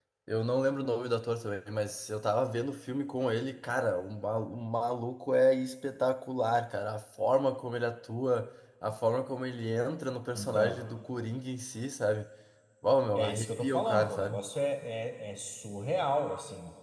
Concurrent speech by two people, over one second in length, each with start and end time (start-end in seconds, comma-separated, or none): 13.1-14.4